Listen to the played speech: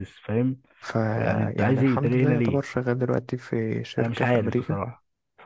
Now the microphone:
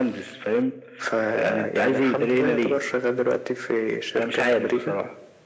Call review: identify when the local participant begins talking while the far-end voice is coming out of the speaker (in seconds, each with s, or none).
none